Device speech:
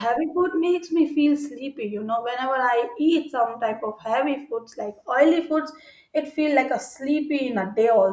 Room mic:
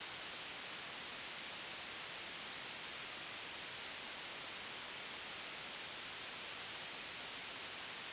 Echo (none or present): none